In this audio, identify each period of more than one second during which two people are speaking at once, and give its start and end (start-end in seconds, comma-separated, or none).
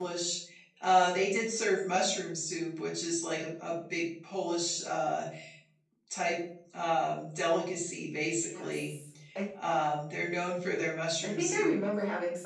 none